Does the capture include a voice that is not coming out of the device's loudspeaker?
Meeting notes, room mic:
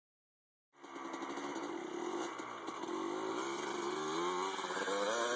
No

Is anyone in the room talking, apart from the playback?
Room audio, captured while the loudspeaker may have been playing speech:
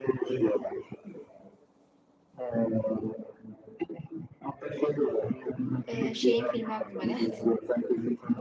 Yes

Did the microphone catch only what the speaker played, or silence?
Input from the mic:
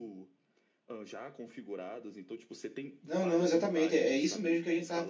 No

